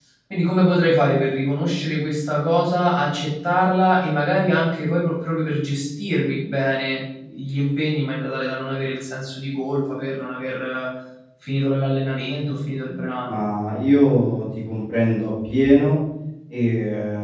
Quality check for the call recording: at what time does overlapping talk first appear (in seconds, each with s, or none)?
none